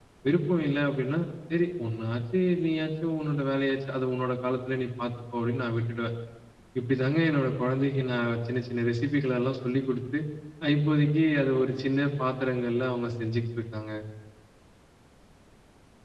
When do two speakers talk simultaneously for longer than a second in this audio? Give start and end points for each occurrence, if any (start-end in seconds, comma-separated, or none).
none